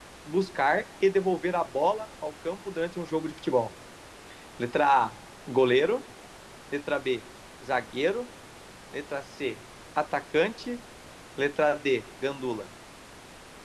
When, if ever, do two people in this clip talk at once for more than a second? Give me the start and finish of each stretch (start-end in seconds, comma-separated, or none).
none